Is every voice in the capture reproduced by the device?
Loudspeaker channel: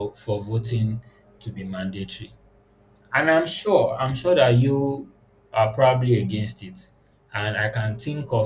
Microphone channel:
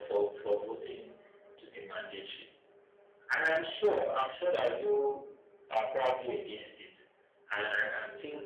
Yes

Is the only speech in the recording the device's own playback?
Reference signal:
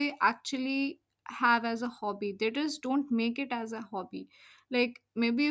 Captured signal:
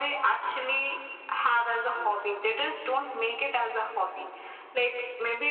No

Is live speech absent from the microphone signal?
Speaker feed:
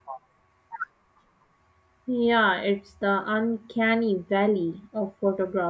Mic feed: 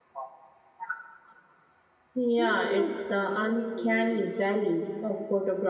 No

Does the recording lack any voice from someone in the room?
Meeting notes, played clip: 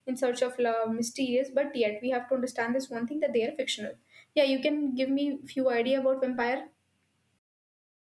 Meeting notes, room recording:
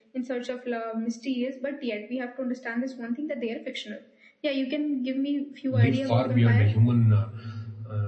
No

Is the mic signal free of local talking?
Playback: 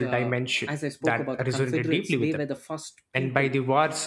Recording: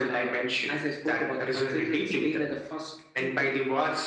Yes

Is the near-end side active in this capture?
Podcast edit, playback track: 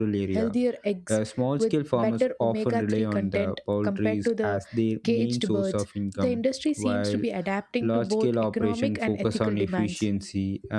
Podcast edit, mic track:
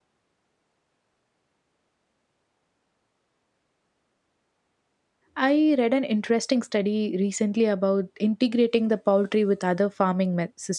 Yes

